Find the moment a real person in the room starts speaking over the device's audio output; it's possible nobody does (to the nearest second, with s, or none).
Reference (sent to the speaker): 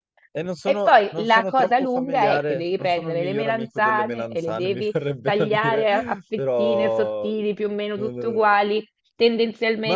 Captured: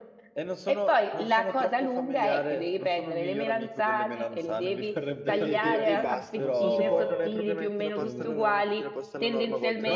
5 s